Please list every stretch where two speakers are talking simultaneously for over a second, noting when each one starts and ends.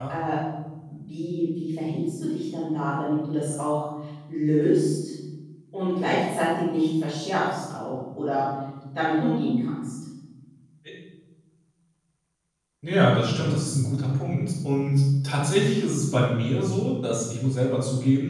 none

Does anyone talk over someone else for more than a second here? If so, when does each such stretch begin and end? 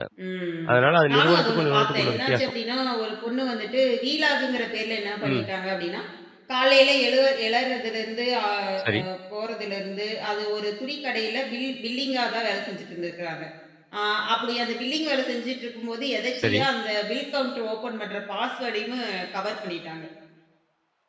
1.1-2.5

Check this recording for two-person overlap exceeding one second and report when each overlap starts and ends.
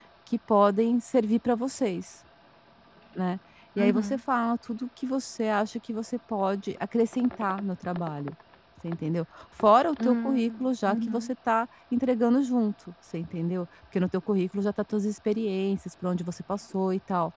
10.1-11.3

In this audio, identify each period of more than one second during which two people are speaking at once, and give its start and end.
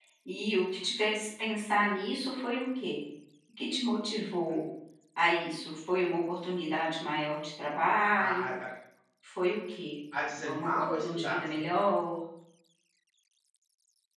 10.3-11.9

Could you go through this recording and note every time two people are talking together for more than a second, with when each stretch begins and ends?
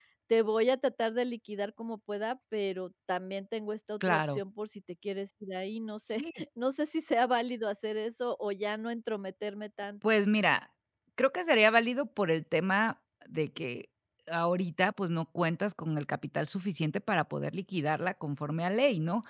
none

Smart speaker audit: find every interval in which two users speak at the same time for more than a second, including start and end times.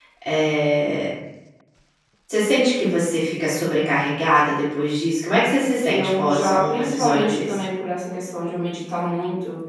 5.8-7.6

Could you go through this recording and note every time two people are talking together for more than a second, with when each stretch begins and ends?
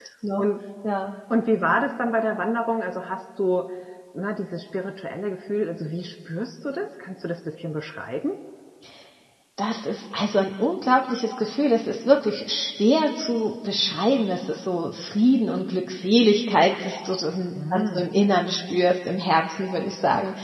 none

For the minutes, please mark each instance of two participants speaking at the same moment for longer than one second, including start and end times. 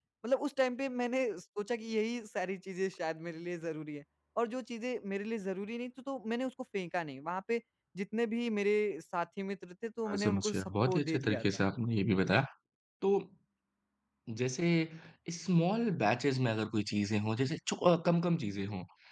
10.1-11.4

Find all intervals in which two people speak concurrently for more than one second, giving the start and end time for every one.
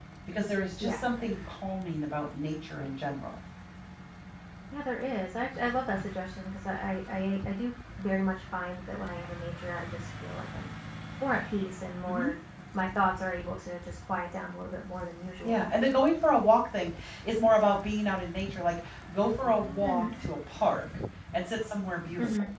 none

